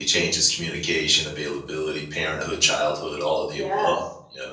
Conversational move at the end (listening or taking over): taking over